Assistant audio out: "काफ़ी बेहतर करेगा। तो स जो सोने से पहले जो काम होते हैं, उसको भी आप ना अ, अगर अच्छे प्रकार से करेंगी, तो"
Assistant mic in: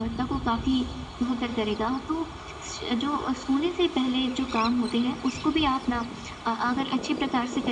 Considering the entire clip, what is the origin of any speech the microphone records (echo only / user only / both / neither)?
echo only